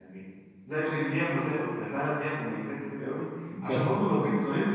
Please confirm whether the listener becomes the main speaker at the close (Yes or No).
No